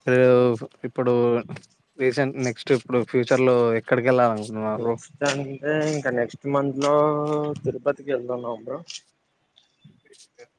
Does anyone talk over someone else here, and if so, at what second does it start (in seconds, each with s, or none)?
none